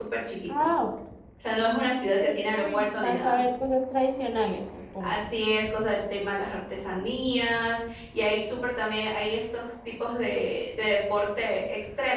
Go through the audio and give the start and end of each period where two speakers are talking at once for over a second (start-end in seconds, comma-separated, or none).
2.2-3.4